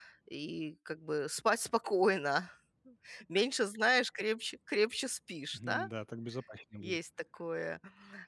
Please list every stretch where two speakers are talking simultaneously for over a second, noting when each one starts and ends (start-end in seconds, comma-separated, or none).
none